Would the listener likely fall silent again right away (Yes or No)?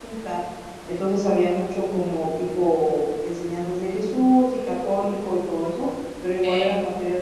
Yes